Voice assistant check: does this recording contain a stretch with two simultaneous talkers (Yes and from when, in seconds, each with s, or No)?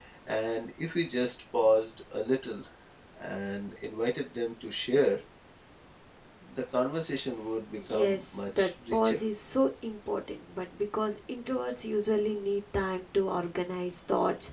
Yes, from 7.7 s